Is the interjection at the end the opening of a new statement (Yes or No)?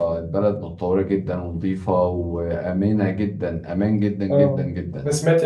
Yes